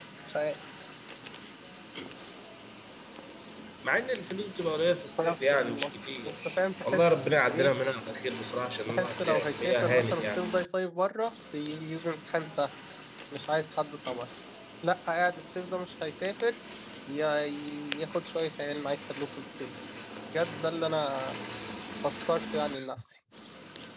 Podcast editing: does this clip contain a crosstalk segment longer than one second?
Yes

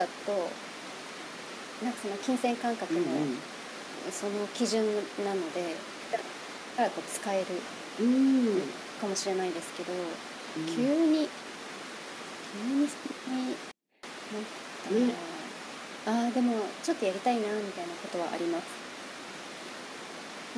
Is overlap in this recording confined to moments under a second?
Yes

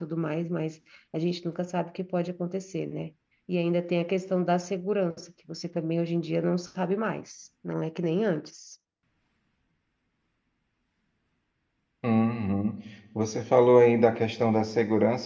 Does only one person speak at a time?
Yes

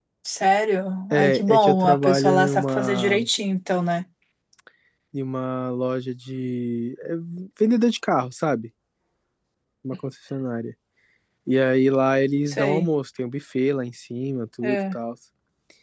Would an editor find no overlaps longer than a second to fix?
No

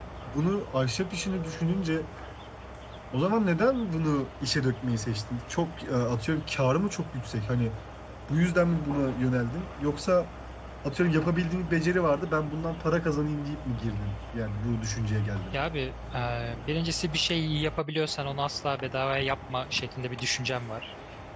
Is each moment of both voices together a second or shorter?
Yes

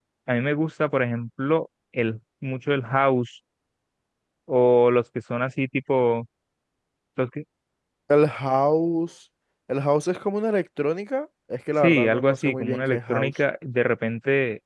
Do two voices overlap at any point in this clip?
Yes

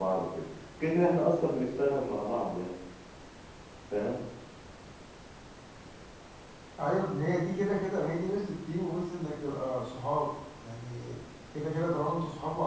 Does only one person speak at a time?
Yes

